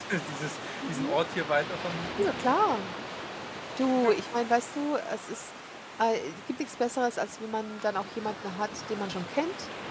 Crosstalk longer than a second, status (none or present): none